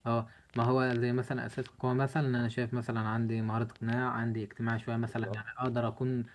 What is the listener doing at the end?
listening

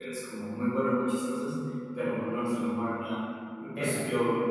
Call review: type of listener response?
listening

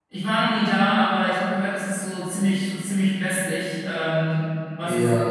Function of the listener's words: taking over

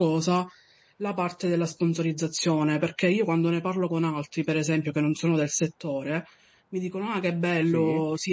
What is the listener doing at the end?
listening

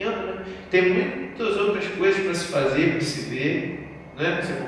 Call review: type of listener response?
taking over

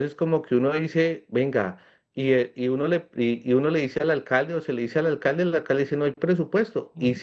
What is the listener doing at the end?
listening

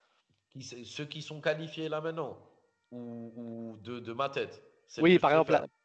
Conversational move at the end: taking over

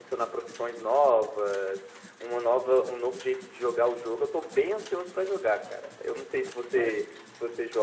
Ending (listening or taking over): listening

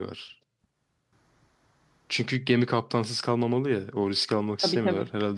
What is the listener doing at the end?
listening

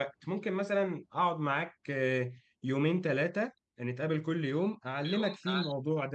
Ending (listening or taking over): listening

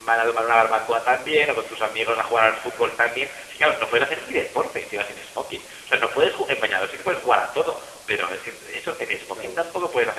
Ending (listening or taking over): listening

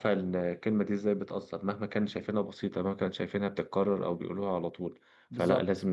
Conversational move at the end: listening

